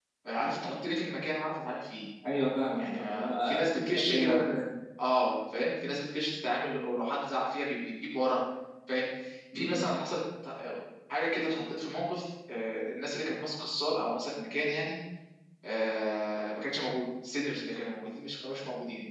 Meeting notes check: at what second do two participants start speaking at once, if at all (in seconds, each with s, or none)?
2.8 s